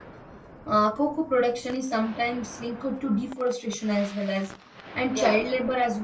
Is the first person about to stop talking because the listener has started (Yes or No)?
No